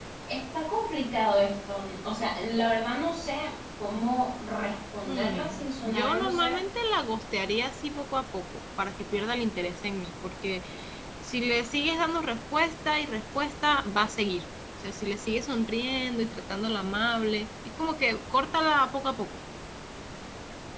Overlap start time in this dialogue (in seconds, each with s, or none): 5.0 s